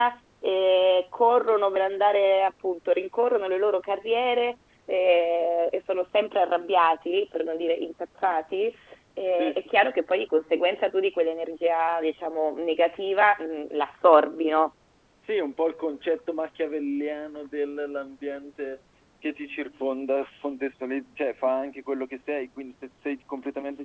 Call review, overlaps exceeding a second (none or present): none